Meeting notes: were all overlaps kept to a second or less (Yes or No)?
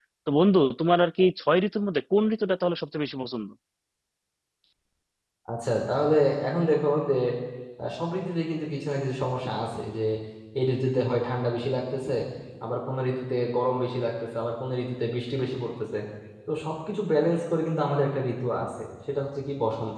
Yes